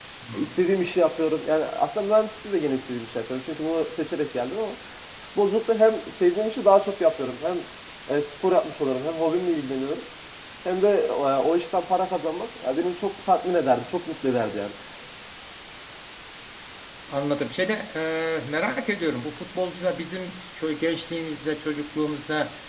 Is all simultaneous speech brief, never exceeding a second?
Yes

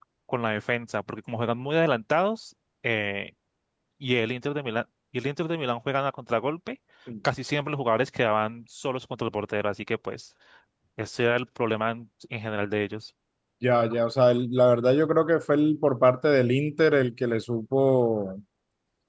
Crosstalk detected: No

